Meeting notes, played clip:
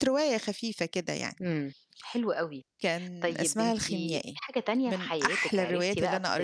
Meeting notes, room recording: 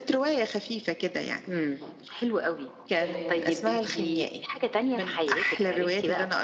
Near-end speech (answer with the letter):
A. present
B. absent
A